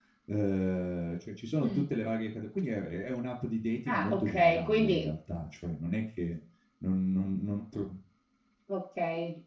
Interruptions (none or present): present